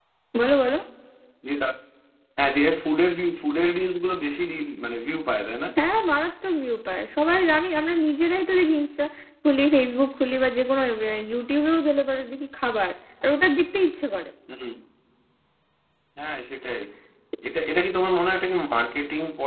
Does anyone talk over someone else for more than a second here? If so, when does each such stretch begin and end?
none

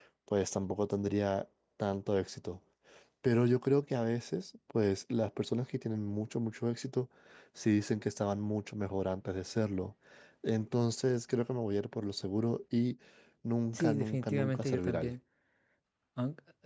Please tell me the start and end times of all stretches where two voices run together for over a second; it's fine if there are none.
13.7-15.1

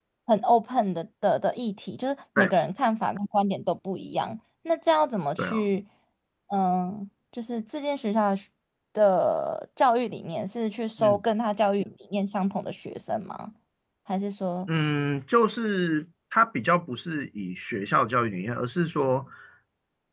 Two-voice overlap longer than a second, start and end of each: none

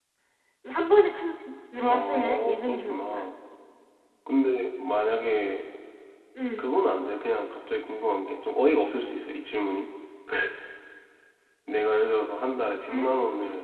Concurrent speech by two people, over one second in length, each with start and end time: 1.9-3.2

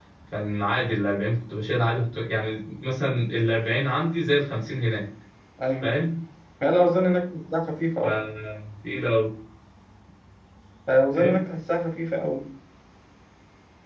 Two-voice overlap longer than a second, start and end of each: none

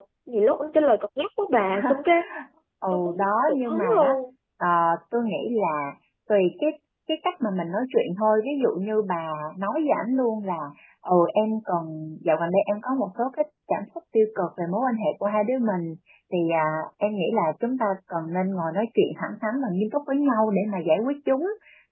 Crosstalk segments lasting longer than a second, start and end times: 2.9-4.2

